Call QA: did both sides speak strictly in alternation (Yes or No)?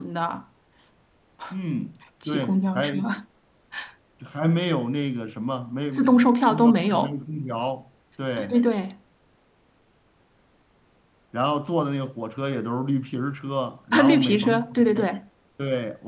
No